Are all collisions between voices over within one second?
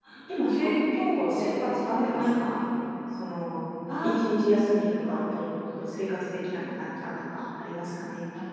No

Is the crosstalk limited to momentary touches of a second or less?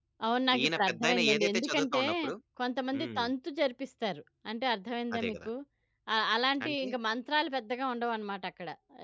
No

